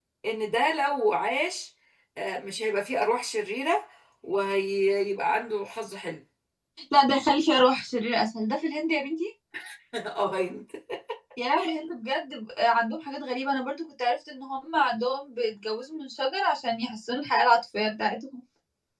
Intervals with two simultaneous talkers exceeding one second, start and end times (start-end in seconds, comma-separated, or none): none